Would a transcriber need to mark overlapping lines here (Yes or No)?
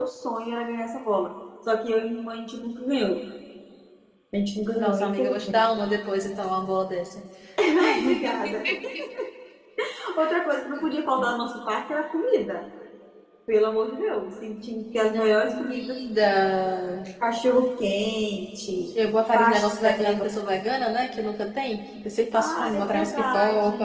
Yes